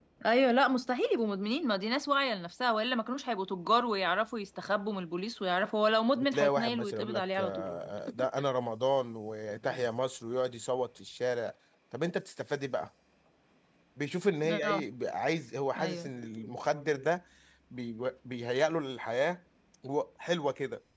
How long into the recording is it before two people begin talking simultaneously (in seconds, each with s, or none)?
6.2 s